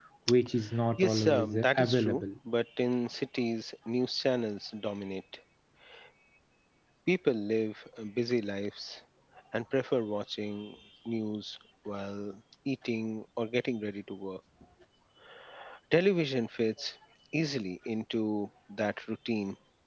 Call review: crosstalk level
present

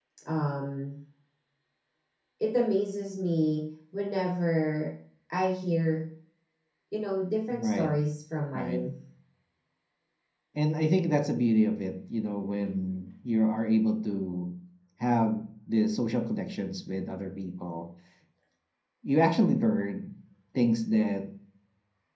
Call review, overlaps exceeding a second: none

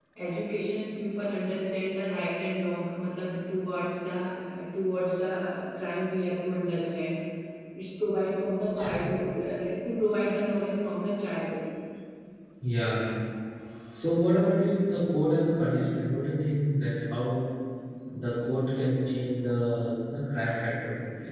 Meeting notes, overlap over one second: none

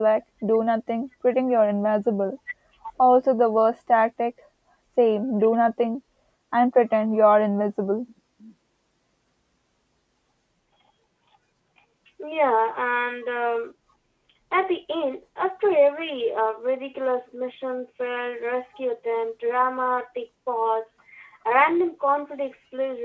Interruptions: none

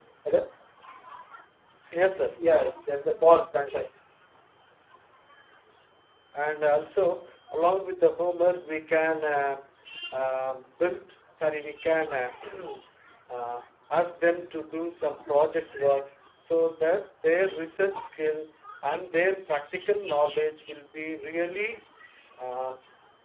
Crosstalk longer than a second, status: none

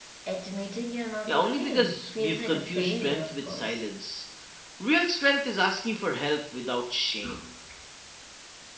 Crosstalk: present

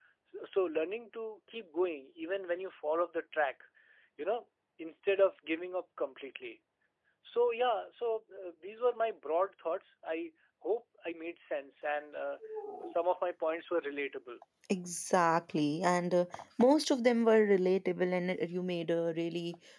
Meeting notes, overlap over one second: none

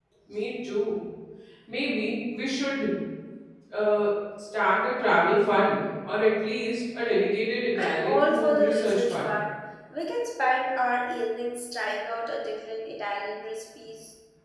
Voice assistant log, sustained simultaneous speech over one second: present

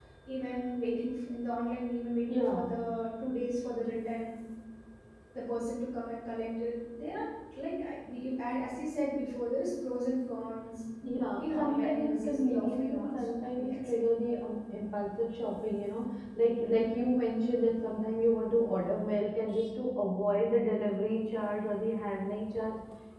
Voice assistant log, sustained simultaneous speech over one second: present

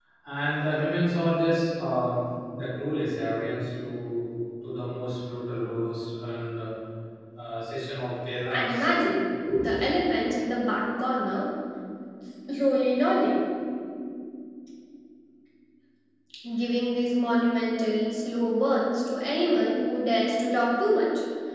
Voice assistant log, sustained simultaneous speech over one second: none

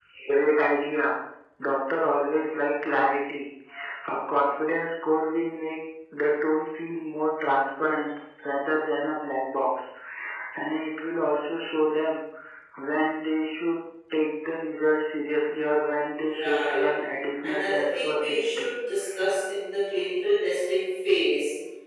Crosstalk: present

